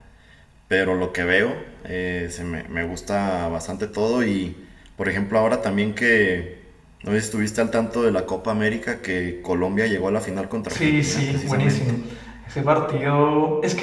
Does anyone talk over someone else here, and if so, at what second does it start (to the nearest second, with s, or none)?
11 s